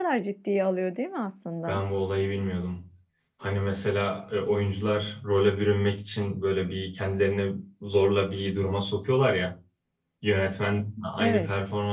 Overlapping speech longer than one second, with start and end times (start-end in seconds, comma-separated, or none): none